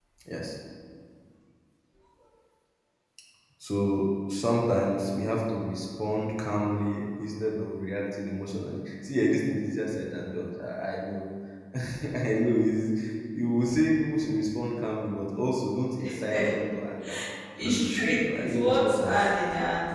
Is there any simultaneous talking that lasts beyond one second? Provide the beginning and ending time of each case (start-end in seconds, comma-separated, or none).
17.6-19.2